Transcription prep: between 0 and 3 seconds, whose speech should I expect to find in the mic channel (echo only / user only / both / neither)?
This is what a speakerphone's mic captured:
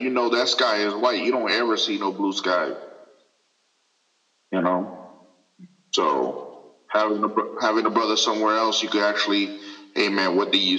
echo only